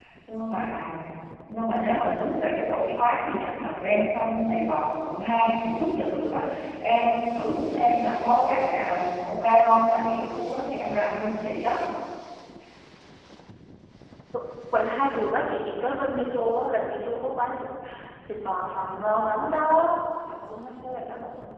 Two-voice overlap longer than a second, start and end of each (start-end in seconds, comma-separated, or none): none